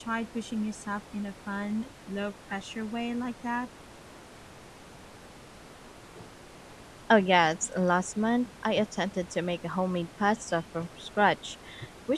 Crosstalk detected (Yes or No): No